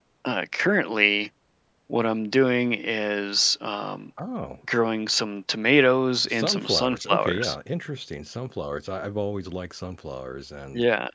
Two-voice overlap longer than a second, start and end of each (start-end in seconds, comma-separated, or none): 6.3-7.5